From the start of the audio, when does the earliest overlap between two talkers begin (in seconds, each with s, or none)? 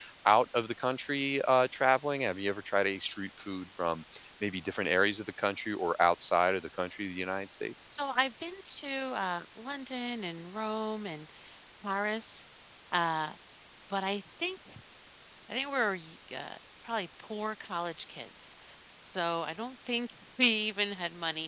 none